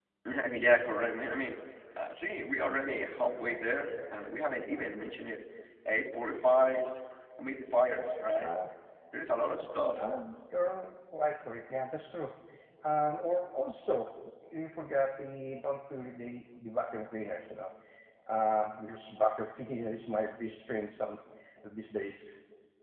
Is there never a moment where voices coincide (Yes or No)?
Yes